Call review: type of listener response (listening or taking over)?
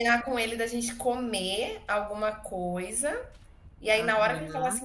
listening